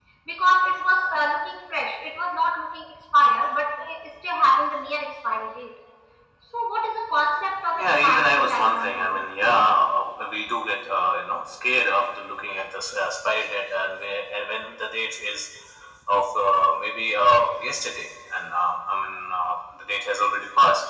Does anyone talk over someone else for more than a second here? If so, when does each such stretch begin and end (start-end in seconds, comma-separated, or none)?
7.8-9.3